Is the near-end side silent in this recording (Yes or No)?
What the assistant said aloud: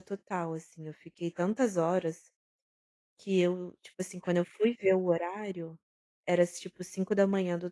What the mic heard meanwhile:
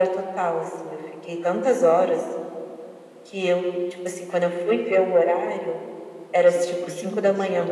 No